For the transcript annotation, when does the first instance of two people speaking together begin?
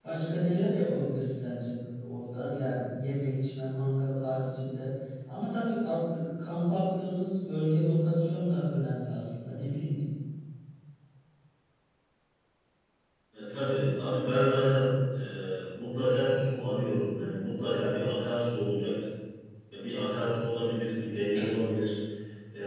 none

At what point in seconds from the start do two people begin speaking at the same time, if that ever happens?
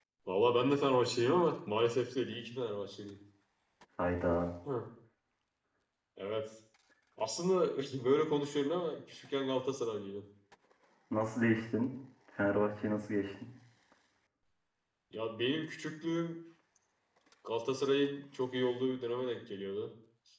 none

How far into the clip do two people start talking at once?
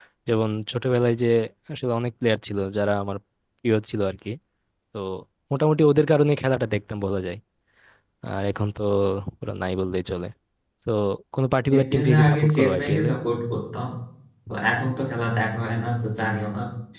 11.7 s

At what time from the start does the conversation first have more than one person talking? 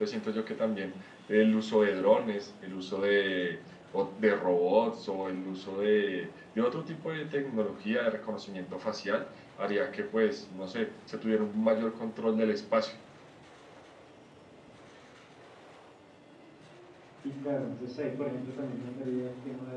none

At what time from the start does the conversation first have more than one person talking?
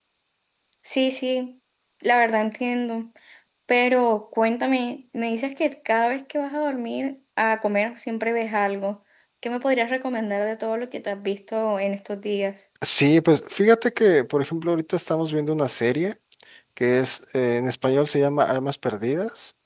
none

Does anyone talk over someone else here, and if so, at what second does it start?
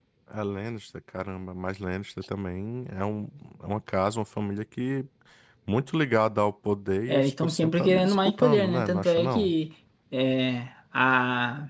7.1 s

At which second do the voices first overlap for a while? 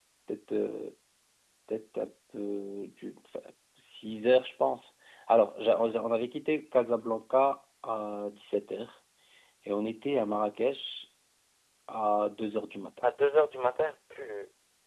none

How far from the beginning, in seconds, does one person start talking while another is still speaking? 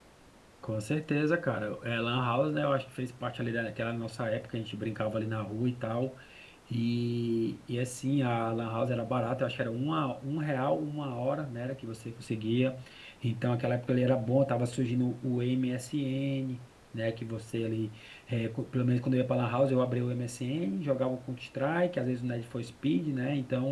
none

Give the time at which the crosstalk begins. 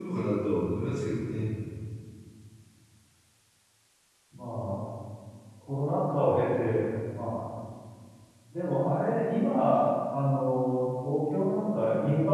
none

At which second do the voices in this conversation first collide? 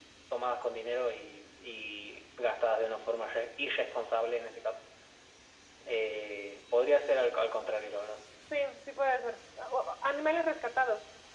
none

